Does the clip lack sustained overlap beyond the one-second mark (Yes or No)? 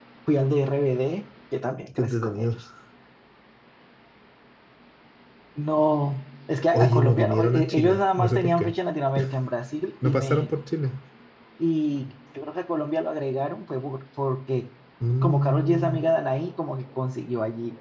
No